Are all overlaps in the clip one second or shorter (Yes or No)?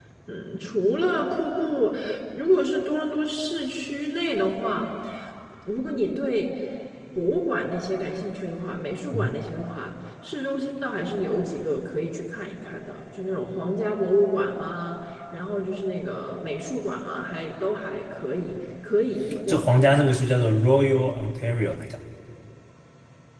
Yes